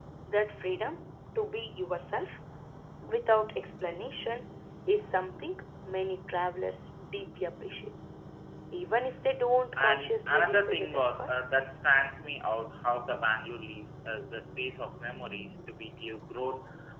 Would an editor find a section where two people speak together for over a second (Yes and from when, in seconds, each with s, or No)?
Yes, from 9.8 s